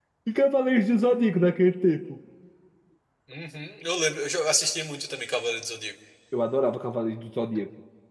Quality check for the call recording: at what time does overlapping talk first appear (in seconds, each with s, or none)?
none